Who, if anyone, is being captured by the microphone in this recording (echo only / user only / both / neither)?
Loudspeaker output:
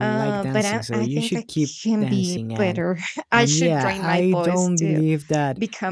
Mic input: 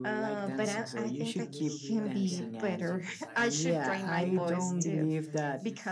both